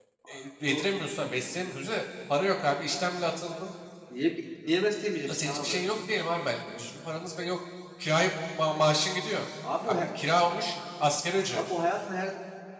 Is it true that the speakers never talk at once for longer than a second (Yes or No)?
Yes